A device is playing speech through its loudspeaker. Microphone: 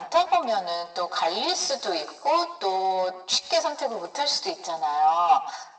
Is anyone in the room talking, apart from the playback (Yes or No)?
No